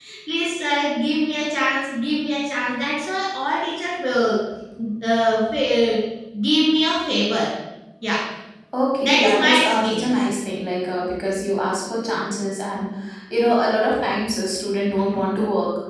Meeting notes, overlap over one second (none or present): present